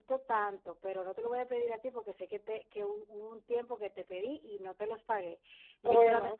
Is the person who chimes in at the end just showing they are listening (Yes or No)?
Yes